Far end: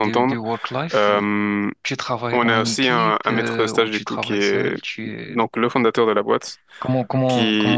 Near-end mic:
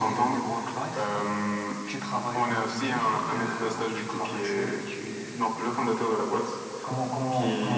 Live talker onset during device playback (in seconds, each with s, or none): none